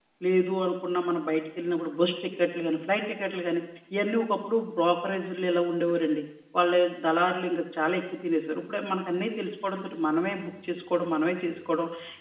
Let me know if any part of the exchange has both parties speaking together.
No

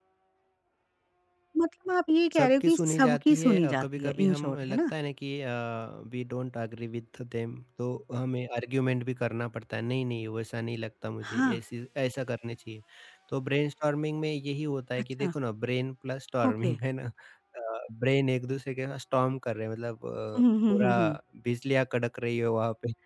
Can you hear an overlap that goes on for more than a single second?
Yes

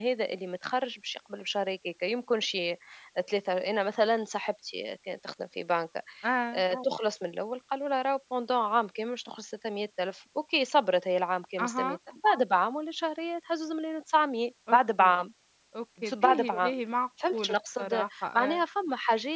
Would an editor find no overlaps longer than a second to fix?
No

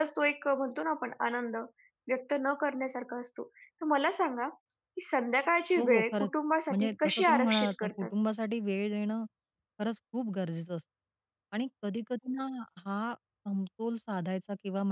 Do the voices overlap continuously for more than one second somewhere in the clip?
Yes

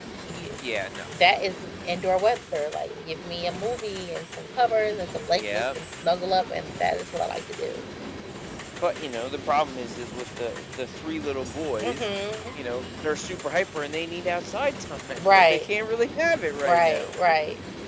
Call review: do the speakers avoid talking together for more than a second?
Yes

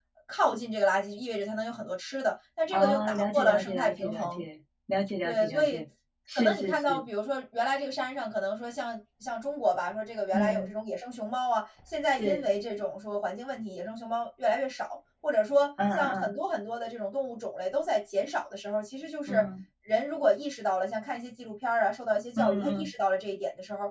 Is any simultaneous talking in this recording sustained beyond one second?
Yes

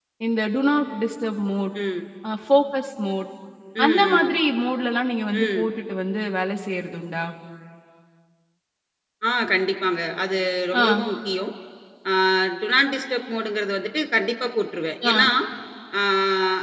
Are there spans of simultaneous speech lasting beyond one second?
No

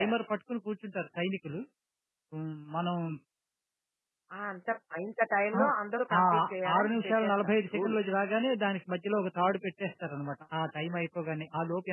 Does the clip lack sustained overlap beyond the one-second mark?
No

